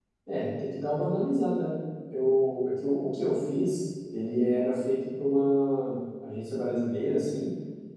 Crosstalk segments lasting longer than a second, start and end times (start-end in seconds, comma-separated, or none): none